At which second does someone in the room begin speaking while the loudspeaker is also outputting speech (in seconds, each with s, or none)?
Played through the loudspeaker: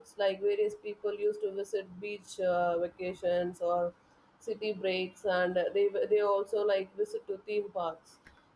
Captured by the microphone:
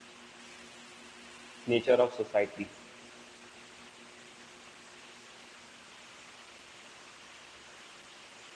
1.6 s